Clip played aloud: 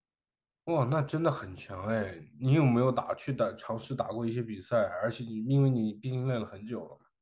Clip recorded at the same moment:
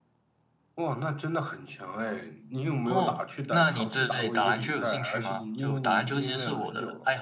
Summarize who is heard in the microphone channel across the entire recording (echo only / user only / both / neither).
both